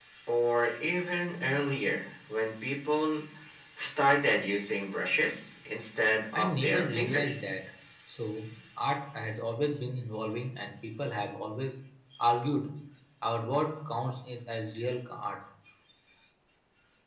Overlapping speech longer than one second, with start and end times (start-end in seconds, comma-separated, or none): 6.3-7.5